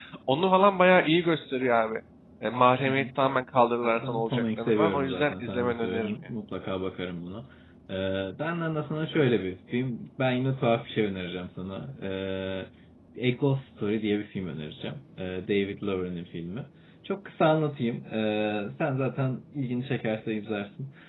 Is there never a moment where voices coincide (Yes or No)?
No